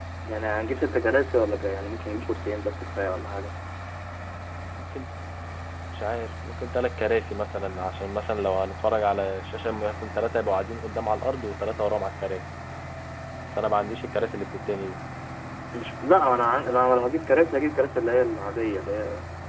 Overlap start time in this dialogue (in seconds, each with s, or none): none